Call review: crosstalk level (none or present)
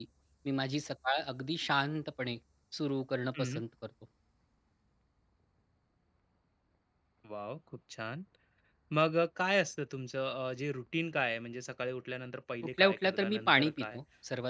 present